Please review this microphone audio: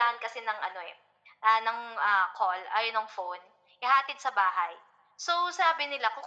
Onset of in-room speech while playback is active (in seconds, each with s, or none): none